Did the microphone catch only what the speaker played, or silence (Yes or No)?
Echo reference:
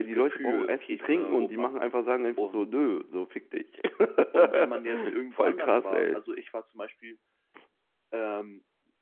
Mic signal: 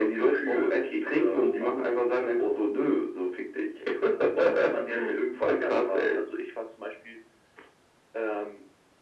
Yes